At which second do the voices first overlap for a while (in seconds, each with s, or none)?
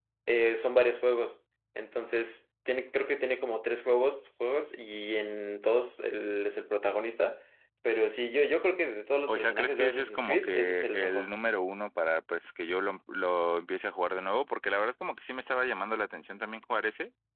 9.3 s